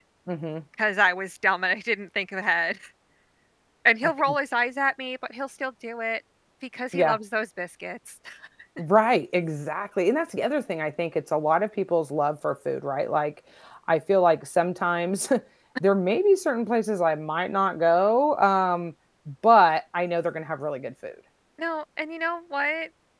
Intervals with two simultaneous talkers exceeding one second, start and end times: none

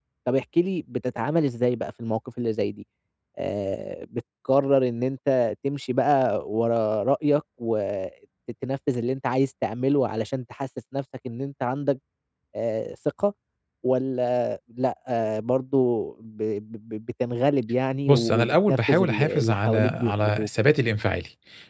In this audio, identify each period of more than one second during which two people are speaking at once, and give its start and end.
18.1-20.5

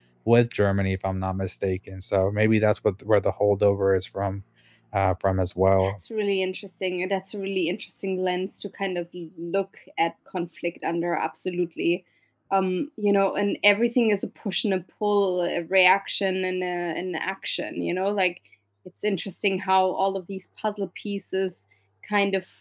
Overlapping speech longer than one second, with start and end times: none

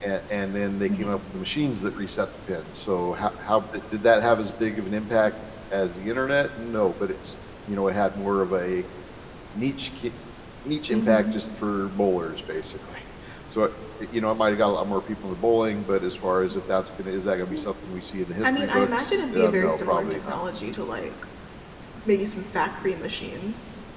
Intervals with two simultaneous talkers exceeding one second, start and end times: 18.4-20.4

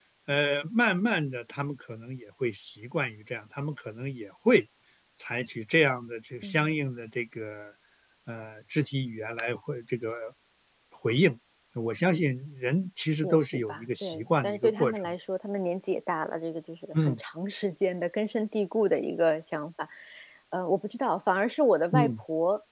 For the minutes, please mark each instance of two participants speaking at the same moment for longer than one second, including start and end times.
13.2-15.0

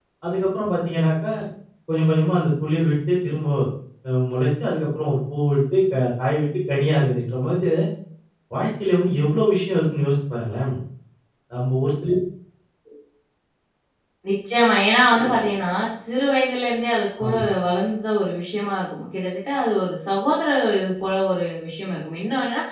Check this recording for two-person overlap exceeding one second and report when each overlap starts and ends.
none

